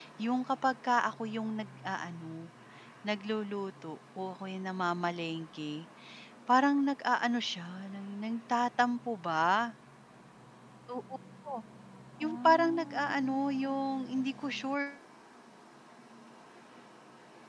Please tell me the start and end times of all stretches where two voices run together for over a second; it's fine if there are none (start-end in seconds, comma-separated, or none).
12.2-13.8